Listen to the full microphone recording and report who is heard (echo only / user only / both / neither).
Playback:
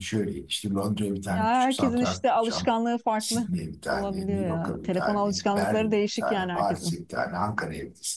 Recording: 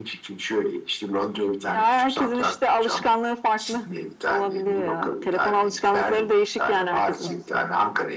both